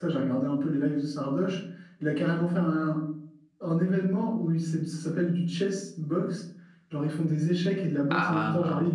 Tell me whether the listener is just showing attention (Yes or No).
Yes